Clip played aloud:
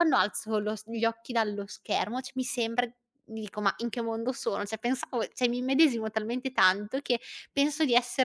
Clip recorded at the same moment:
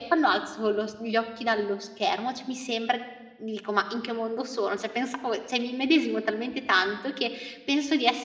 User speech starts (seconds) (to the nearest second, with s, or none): none